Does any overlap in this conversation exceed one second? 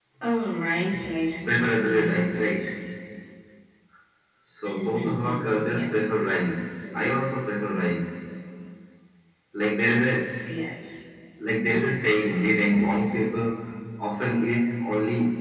Yes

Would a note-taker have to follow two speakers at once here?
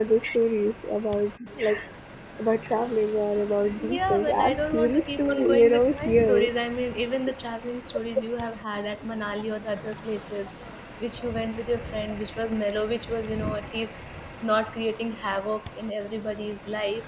Yes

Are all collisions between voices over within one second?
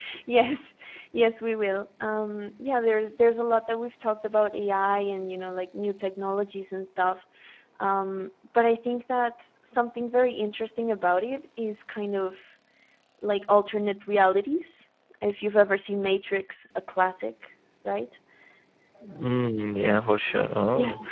Yes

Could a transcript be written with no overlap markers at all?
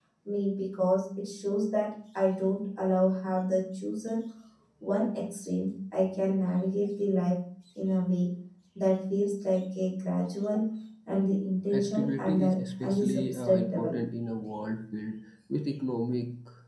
No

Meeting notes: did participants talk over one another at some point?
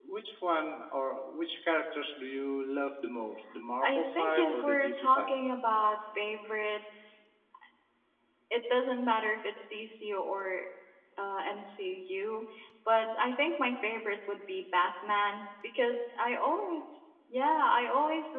Yes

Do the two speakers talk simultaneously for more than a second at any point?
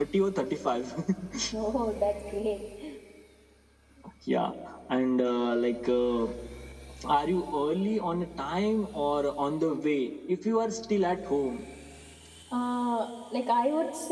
No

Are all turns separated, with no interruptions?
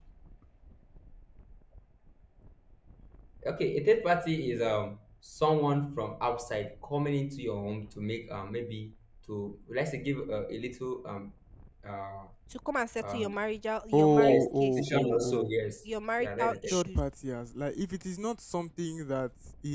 No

